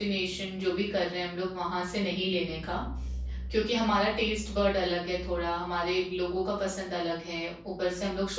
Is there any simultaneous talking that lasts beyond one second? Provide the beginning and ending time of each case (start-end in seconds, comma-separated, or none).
none